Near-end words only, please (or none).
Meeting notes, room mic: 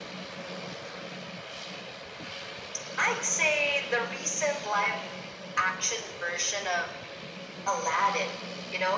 none